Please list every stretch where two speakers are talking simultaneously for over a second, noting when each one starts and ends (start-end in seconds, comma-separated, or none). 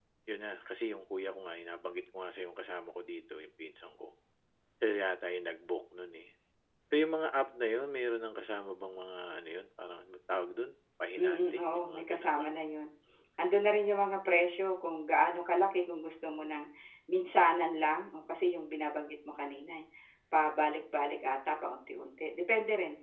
11.2-12.5